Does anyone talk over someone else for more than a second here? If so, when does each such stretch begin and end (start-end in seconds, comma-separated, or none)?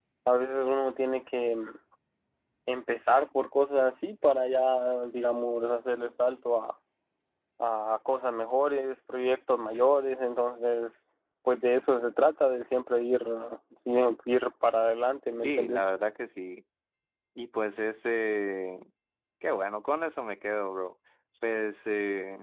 none